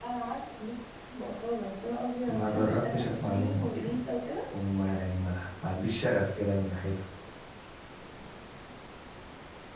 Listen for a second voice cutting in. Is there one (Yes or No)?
Yes